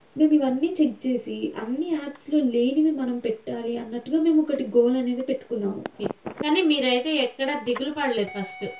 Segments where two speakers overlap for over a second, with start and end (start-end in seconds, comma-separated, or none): none